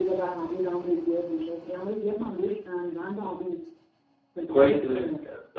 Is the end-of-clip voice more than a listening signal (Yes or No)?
Yes